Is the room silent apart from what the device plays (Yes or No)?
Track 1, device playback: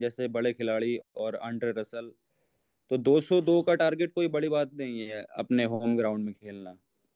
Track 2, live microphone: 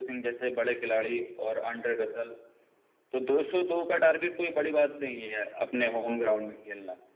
Yes